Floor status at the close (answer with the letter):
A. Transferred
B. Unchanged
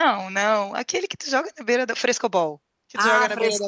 A